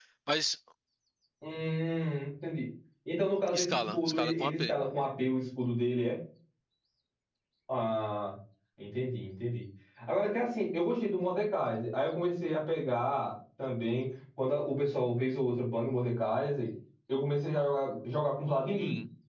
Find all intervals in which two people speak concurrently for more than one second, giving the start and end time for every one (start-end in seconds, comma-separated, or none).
3.5-4.7